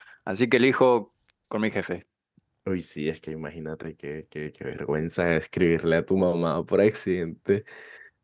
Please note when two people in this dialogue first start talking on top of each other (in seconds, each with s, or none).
none